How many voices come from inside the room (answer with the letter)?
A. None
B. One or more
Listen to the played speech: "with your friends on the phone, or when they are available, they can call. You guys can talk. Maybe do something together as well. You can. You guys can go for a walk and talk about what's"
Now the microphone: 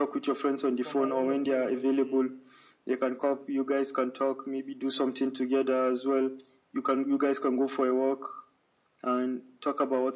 B